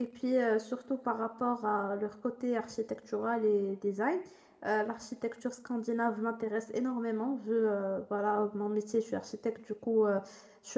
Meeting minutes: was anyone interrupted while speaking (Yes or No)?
No